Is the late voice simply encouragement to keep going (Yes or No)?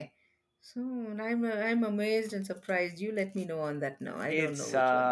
No